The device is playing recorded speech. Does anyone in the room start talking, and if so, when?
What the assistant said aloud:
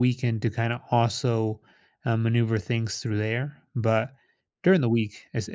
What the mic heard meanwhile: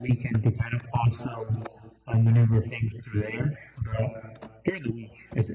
none

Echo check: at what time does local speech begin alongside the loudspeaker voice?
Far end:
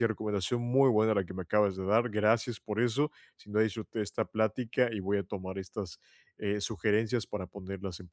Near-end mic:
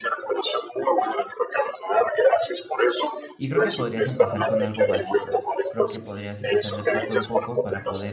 3.4 s

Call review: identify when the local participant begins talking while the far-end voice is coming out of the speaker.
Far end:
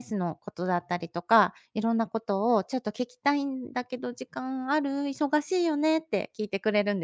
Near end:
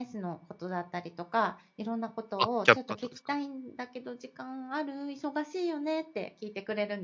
2.4 s

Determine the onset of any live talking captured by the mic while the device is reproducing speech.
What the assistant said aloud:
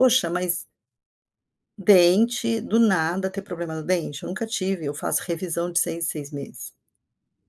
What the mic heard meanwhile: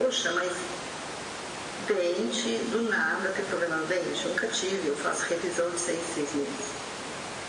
none

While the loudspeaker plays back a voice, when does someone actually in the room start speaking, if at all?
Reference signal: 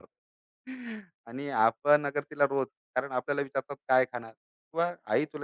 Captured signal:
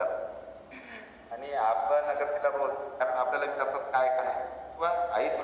none

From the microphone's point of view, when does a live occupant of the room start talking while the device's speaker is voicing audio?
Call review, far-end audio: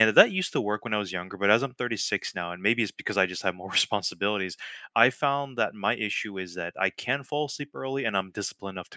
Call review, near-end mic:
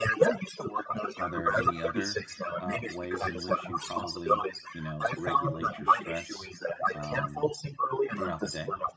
1.1 s

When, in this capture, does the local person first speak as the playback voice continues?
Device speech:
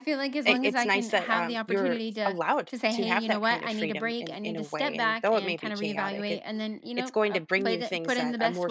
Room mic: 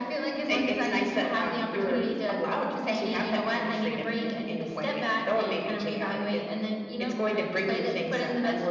none

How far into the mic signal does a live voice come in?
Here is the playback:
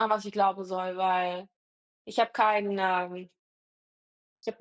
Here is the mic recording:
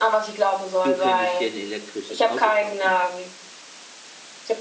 0.8 s

